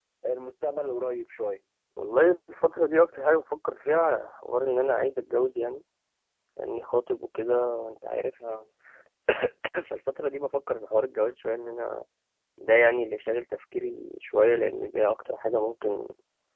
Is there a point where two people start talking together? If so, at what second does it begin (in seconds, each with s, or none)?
none